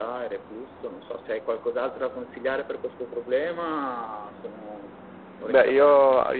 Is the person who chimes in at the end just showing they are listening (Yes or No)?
No